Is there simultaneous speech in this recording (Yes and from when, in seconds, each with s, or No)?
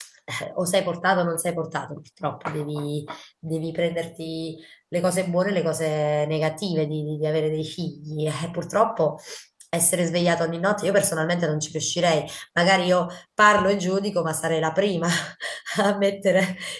No